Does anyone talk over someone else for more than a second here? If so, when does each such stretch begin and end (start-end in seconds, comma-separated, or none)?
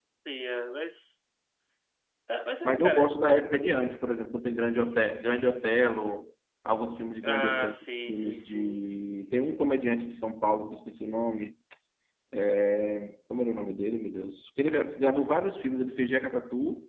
7.2-8.8